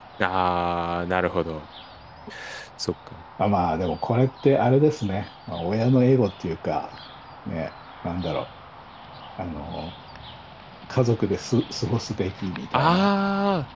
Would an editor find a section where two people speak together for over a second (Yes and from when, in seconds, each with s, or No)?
No